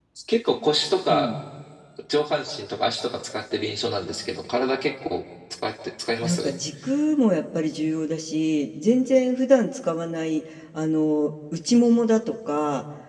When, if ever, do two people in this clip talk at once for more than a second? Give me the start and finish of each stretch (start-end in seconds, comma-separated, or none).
none